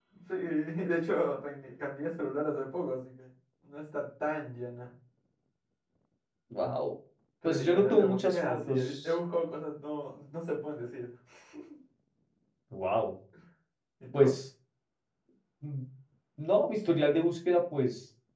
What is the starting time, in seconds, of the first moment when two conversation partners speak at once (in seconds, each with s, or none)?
7.4 s